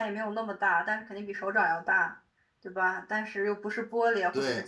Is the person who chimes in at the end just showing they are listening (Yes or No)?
Yes